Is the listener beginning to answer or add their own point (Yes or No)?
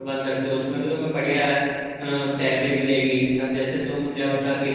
No